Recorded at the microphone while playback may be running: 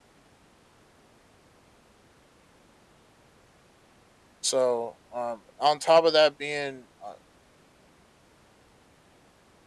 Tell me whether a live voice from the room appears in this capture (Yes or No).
Yes